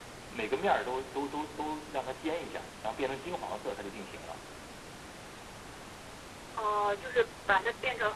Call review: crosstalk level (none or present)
none